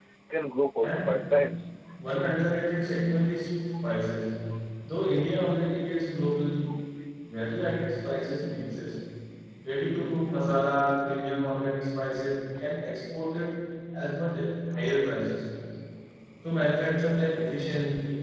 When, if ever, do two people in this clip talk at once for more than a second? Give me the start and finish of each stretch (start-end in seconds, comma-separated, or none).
none